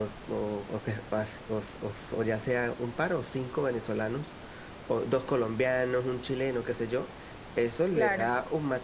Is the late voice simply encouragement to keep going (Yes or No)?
Yes